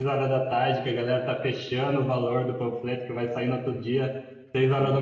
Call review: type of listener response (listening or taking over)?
listening